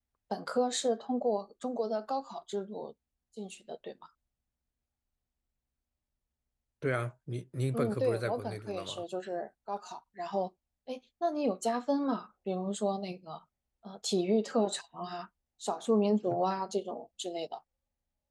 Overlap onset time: 8 s

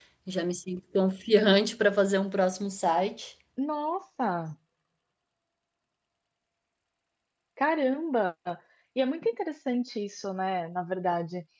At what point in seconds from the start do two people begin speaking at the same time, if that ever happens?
none

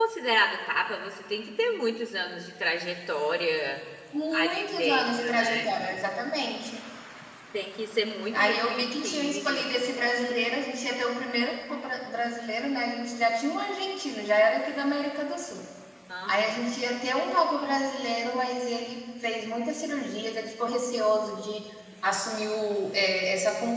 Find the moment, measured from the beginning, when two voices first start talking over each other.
4 s

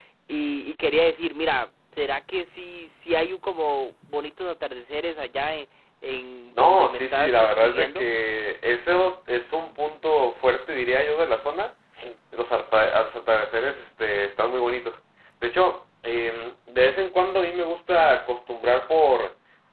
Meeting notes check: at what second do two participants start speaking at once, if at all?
7 s

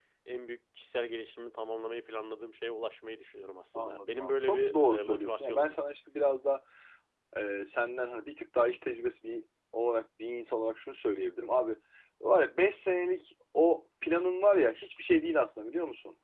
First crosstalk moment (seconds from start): 4 s

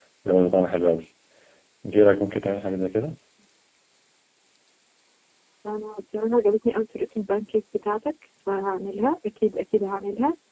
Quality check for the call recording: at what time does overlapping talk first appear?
none

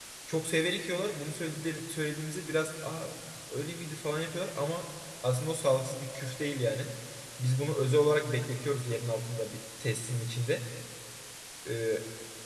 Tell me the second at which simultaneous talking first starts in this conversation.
none

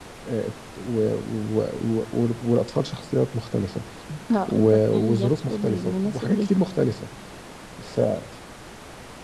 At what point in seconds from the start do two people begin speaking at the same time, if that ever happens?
4 s

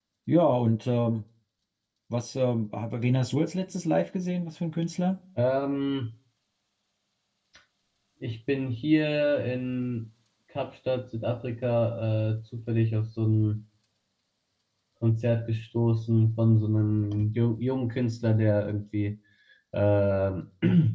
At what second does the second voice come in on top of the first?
none

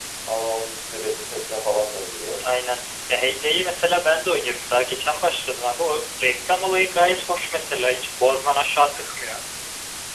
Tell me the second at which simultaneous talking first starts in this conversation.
none

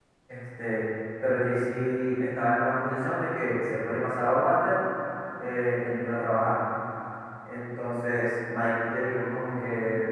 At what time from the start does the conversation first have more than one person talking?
none

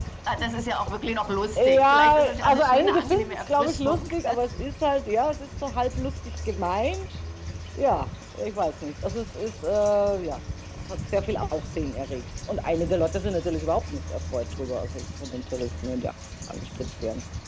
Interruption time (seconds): 2 s

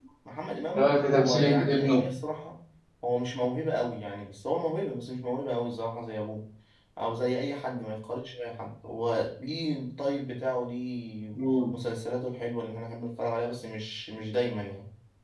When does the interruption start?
1 s

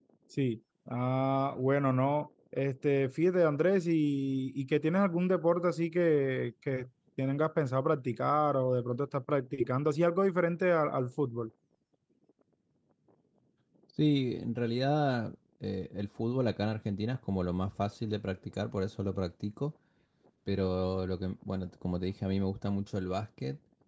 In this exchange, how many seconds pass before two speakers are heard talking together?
none

